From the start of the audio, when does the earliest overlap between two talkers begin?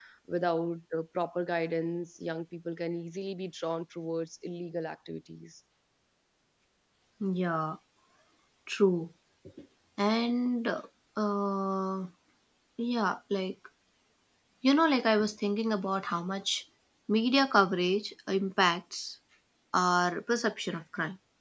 none

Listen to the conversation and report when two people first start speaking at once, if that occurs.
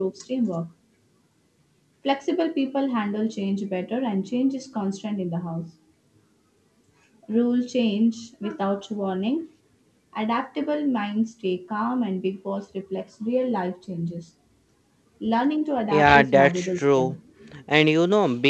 15.9 s

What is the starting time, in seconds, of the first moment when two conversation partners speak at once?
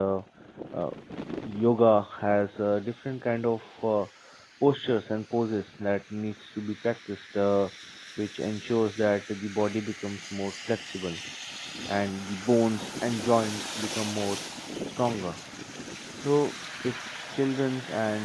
none

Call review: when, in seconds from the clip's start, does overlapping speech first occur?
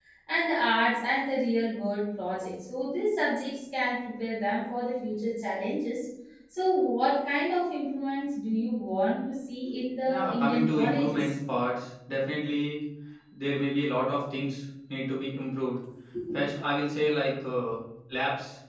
10.1 s

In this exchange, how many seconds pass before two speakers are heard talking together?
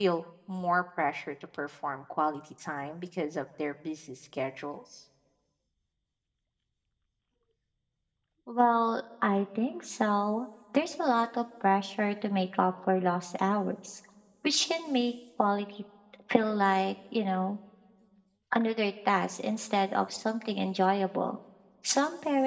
none

